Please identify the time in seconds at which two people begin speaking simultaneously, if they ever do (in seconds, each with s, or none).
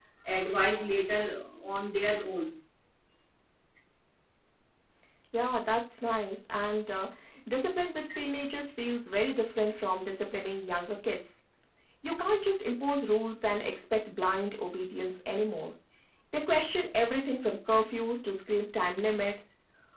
none